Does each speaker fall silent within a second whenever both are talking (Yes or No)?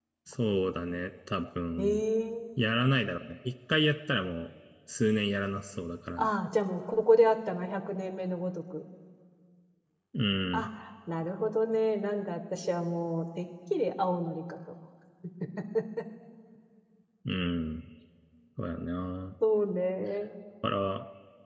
Yes